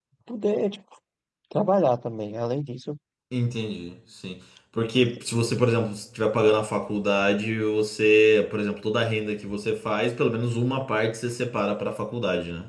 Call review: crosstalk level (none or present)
none